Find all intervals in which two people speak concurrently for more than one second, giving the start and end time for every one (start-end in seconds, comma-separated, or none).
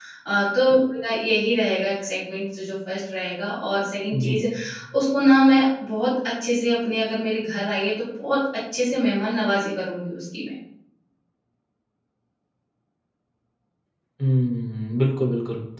none